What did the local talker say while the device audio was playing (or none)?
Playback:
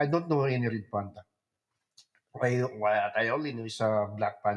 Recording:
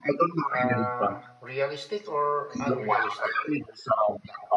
Uh, realistic or unrealistic?